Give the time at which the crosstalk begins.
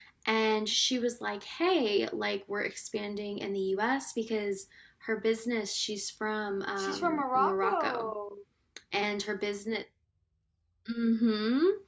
7 s

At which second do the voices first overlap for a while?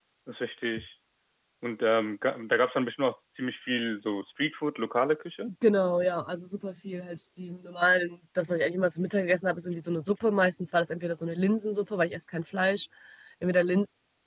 none

